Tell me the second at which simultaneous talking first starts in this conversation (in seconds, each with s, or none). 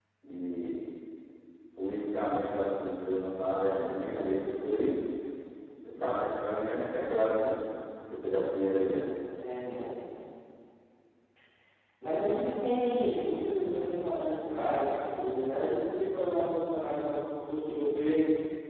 none